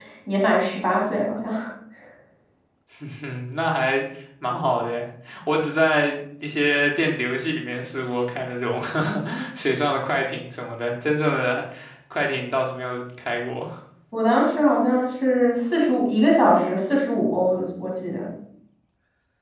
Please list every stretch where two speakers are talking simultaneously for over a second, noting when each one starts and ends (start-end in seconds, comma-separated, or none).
none